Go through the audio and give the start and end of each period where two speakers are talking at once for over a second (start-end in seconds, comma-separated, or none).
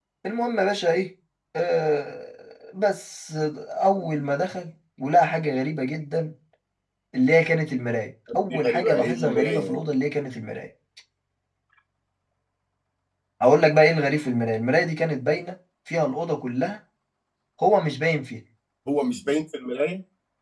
8.5-9.8